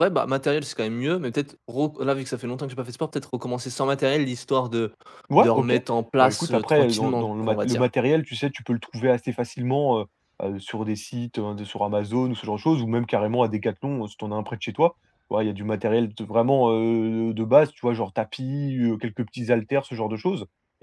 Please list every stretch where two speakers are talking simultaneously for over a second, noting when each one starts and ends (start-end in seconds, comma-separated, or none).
6.2-7.8